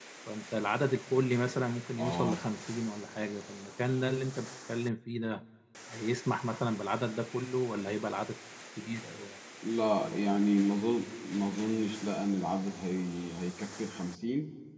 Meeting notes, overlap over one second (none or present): none